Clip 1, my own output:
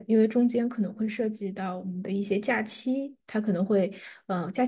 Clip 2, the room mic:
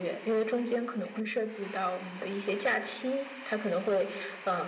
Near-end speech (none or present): none